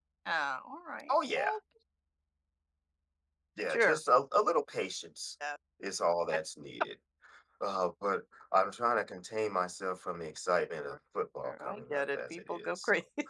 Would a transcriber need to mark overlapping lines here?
Yes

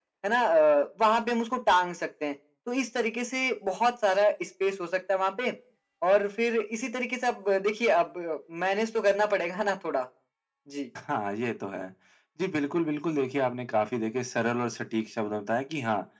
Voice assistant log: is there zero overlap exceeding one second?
Yes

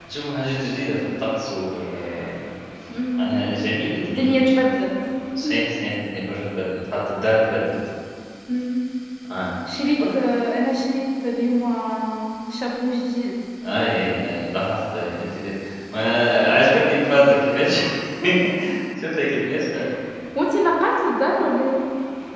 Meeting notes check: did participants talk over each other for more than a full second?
No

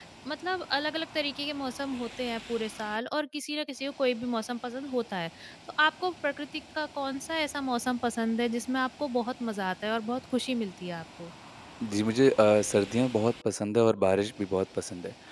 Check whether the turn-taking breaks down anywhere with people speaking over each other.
No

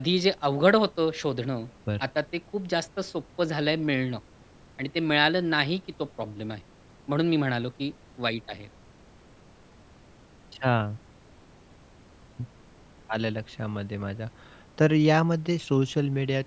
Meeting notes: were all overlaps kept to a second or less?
Yes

